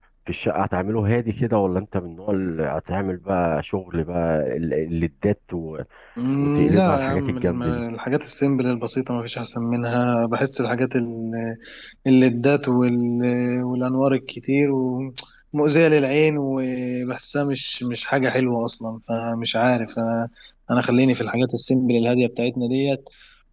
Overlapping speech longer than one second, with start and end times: 6.4-7.8

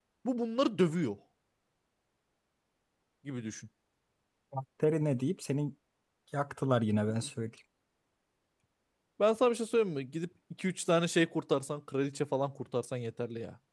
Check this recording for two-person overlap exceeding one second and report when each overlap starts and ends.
none

